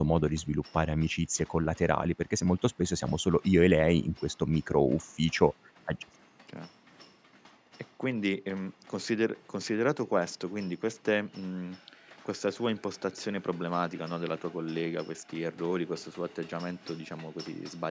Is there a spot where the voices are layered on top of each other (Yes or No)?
No